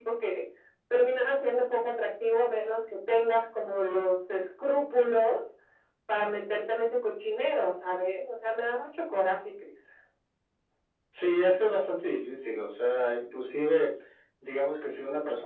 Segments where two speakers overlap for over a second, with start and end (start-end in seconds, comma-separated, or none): none